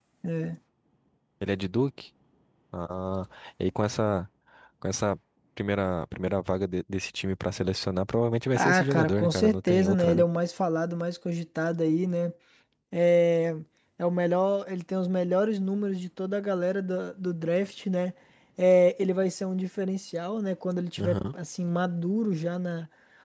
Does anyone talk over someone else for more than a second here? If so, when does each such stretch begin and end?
8.5-10.2

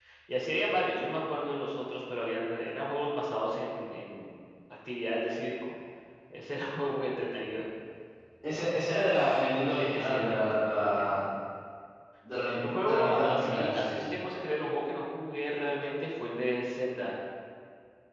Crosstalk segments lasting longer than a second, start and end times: 9.7-11.3, 12.8-14.1

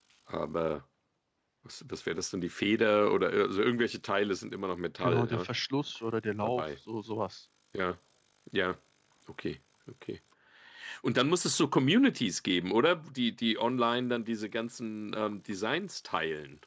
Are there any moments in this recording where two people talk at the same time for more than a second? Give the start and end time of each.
none

